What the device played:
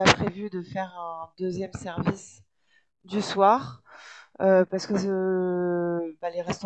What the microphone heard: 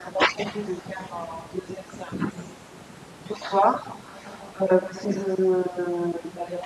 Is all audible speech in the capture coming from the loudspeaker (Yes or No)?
Yes